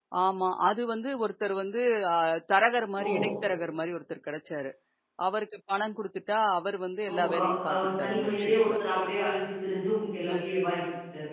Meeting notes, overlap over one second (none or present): present